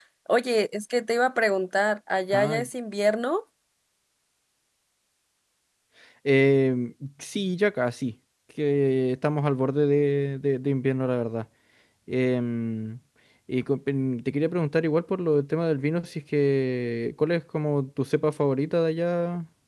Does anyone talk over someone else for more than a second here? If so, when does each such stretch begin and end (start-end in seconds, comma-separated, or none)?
none